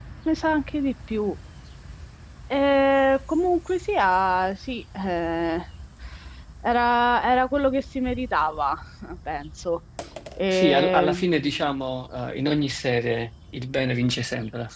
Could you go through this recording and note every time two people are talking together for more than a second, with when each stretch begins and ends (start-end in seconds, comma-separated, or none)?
10.5-11.7